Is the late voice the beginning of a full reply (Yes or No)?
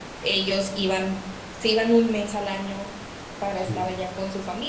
No